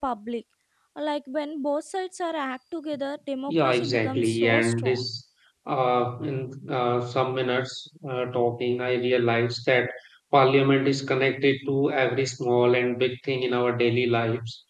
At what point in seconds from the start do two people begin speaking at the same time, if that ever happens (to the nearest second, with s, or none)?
3 s